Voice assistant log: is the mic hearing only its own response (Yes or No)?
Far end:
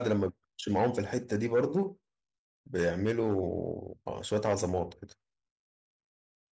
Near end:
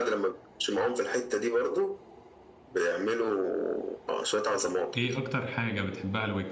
No